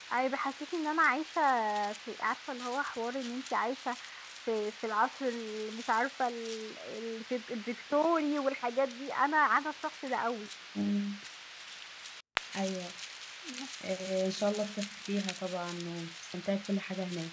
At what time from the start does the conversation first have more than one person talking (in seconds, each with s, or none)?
none